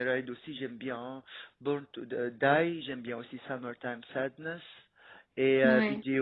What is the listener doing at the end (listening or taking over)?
listening